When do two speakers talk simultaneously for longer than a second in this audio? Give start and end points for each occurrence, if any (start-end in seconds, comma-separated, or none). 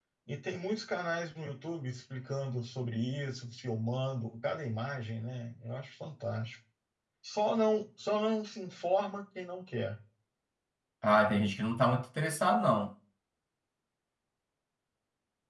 none